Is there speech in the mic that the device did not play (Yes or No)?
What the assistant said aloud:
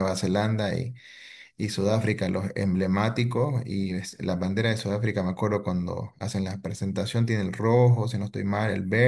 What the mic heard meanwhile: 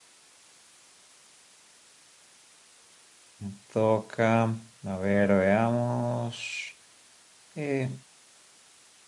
Yes